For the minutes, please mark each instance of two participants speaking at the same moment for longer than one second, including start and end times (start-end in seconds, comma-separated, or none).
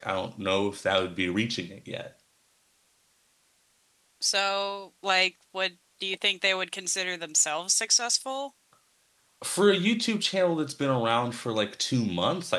none